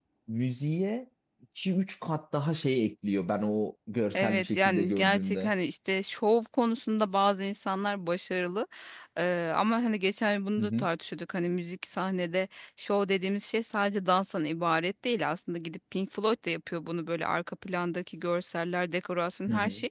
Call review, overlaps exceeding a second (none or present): present